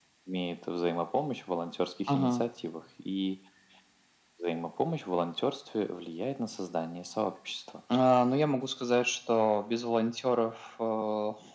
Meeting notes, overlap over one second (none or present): none